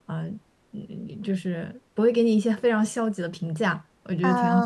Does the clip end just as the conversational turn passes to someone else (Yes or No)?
Yes